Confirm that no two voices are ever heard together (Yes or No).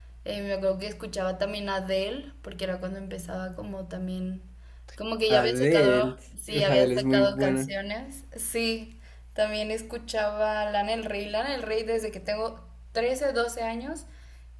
No